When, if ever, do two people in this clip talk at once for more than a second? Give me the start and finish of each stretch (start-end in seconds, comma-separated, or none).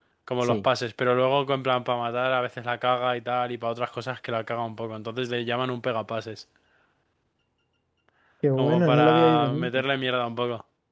8.6-9.8